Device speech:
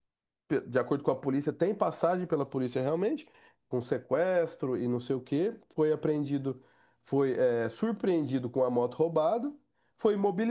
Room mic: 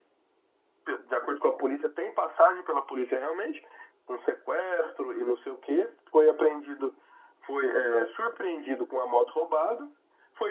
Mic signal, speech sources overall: echo only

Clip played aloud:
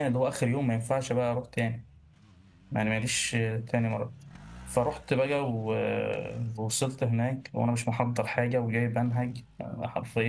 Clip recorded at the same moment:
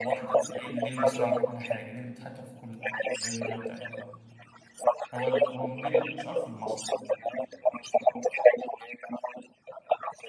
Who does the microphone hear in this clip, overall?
both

